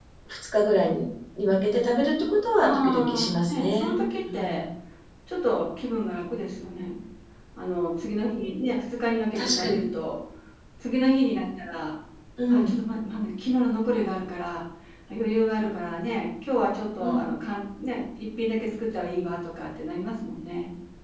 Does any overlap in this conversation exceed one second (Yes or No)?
Yes